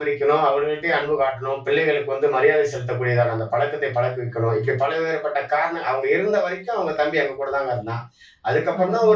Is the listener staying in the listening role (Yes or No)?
Yes